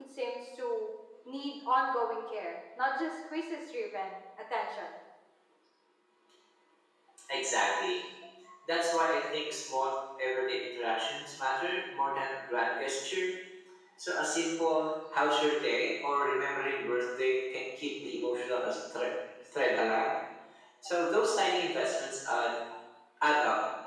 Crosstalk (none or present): none